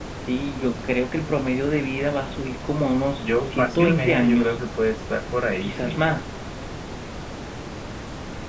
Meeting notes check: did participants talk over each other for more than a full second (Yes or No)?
Yes